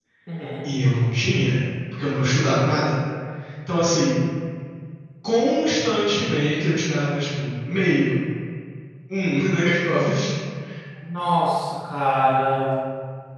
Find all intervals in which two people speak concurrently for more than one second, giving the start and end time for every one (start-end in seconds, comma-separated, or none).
none